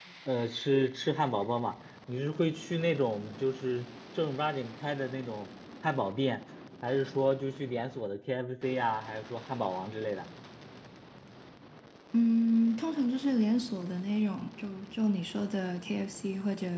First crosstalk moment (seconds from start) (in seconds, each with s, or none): none